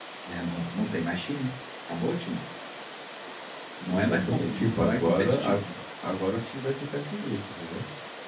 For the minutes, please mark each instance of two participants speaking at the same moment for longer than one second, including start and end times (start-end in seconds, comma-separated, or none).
3.9-5.6